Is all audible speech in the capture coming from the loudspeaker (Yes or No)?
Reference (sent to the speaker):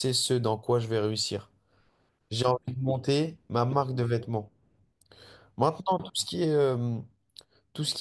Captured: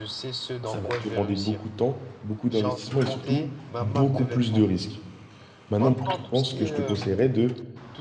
No